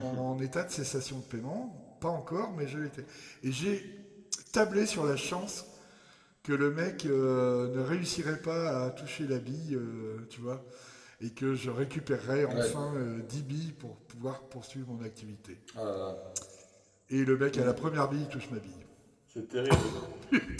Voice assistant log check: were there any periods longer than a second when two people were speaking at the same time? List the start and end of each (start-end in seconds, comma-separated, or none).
none